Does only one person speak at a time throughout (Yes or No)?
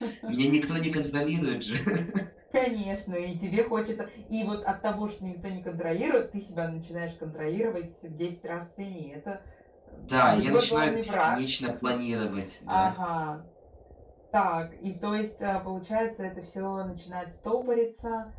No